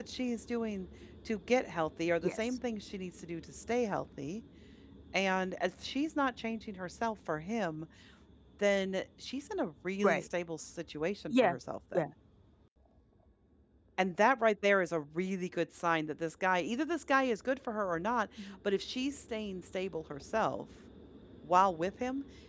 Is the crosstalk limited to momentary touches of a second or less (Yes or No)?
Yes